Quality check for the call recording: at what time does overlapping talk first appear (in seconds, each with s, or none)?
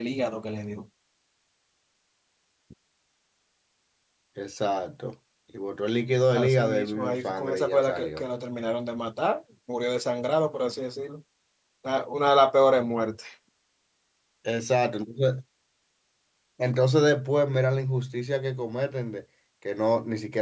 6.3 s